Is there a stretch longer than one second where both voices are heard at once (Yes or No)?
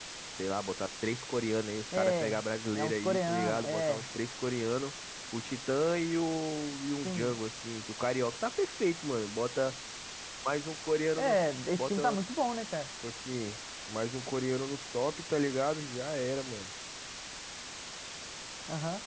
Yes